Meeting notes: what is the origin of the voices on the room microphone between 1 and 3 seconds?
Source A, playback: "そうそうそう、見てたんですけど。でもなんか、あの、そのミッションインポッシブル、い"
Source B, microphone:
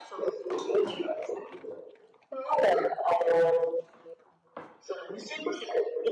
echo only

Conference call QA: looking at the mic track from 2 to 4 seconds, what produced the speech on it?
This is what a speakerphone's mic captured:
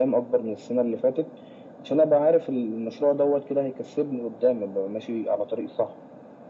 echo only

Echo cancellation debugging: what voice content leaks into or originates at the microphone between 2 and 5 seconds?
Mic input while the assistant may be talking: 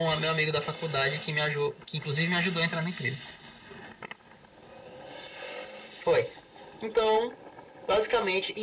echo only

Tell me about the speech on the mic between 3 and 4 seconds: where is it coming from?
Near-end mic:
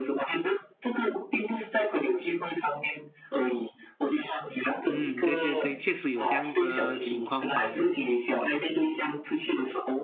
echo only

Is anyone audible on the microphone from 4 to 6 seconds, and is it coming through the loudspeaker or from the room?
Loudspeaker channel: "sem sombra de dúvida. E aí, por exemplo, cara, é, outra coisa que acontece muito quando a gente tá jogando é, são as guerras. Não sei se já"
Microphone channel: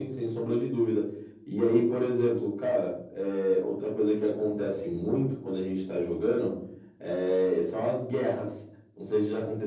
echo only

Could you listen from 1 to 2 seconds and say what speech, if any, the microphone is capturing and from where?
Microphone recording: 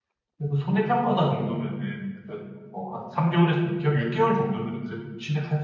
user only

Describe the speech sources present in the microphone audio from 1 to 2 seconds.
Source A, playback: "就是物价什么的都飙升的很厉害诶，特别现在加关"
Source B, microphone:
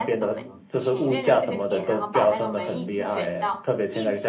both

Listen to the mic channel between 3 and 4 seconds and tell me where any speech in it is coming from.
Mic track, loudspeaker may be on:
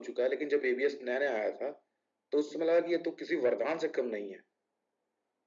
echo only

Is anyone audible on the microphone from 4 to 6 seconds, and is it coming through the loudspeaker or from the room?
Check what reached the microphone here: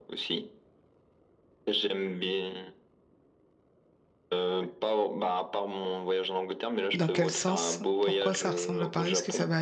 echo only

